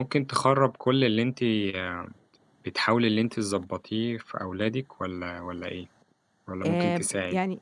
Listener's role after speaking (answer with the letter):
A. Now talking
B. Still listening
A